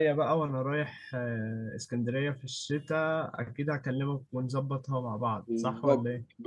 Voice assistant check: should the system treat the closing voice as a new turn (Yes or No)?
Yes